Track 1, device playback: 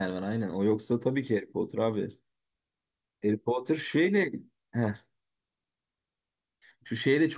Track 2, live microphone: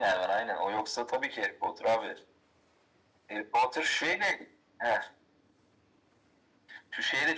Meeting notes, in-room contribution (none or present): none